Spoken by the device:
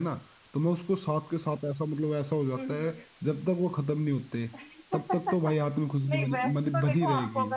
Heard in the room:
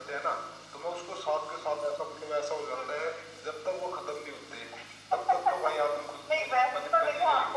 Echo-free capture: No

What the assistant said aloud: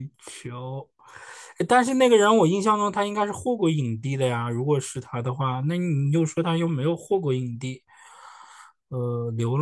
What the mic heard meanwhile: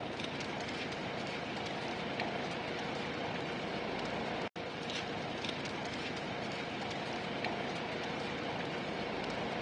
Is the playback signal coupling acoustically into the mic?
No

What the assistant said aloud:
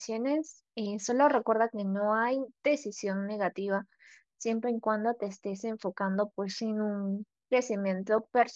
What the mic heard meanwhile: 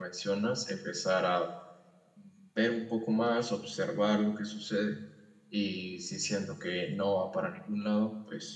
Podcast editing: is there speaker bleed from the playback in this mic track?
No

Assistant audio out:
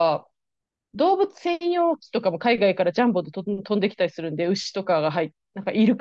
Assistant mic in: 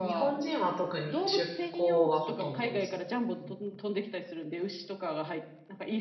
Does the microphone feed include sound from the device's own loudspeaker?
Yes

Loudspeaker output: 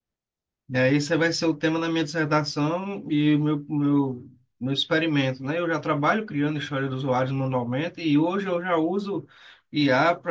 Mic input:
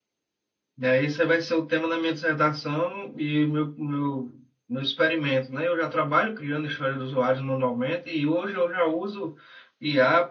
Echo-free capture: No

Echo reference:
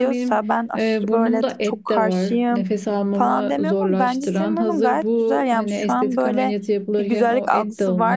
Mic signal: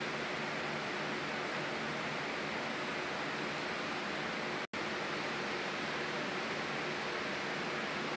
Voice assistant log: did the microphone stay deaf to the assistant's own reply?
Yes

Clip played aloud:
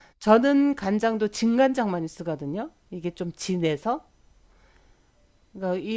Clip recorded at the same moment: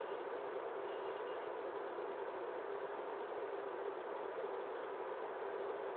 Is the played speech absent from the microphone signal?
Yes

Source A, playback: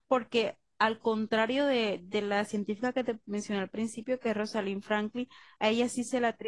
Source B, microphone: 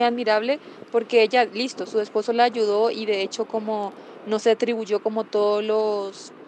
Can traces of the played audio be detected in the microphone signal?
No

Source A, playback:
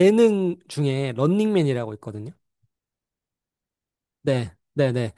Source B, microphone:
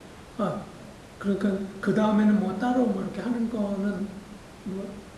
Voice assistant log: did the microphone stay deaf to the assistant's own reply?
Yes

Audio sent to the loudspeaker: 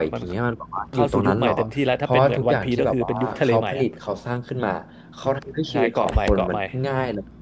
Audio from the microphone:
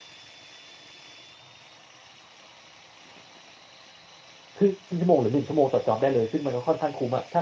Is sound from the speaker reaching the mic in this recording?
No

